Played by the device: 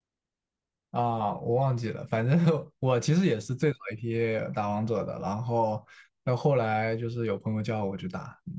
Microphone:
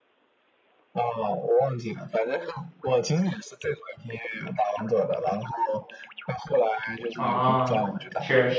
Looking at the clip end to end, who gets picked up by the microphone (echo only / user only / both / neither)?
both